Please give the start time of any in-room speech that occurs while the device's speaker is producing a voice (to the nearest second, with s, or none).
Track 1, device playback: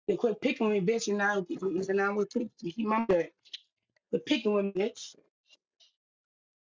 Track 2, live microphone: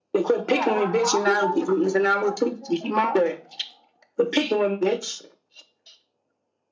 0 s